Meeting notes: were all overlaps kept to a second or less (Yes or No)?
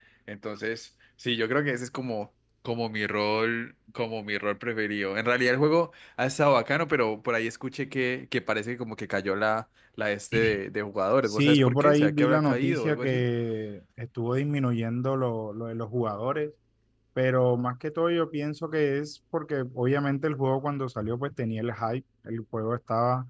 No